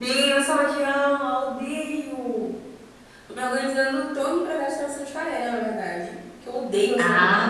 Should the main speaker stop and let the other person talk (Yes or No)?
Yes